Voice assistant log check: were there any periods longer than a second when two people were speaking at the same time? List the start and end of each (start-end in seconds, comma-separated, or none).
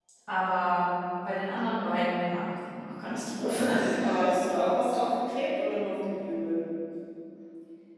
none